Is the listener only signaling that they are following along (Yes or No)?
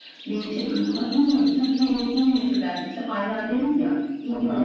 Yes